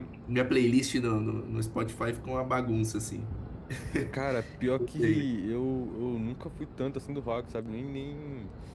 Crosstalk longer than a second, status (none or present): none